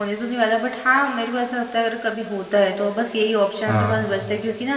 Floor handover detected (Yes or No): No